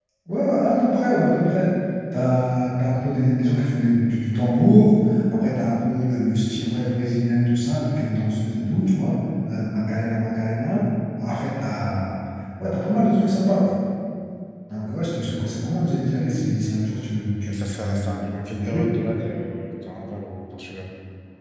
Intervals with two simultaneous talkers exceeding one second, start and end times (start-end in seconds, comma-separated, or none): 17.5-18.9